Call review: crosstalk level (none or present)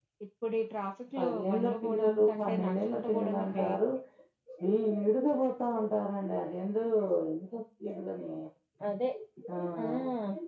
present